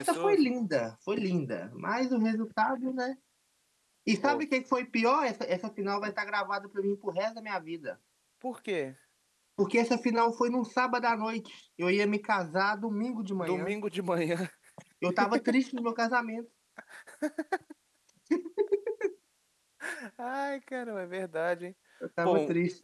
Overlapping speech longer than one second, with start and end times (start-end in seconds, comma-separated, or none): none